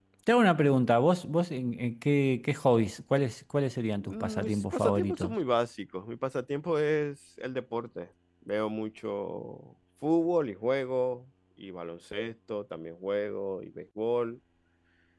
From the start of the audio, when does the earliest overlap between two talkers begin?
4.0 s

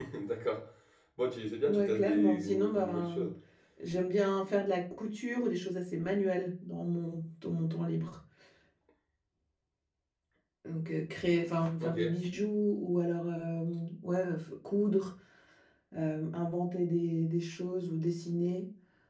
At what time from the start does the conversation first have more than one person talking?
1.7 s

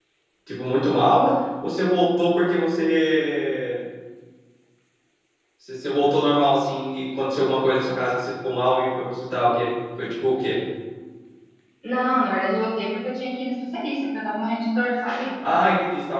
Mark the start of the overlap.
none

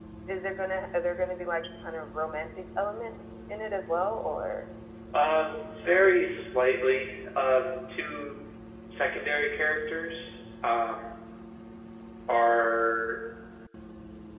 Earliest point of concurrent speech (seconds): none

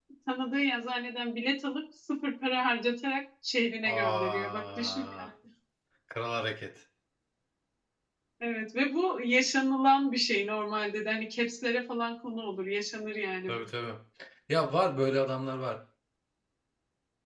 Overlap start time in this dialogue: 3.8 s

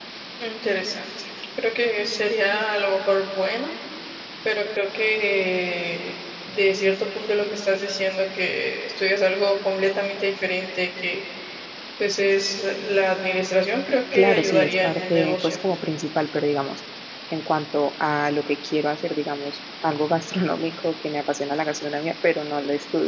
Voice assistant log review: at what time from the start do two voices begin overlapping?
14.1 s

